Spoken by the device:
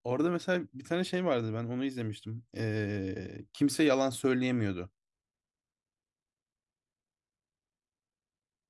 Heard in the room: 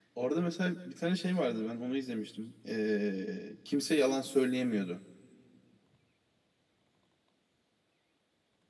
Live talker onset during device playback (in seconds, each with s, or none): none